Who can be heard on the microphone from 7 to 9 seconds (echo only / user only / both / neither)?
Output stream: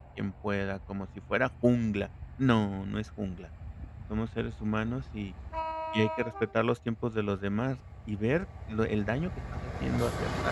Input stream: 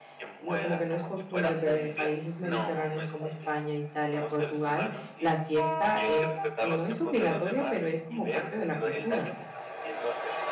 both